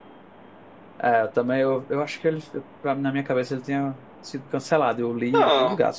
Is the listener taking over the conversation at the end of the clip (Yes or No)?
Yes